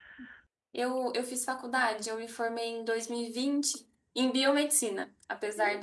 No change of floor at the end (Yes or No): Yes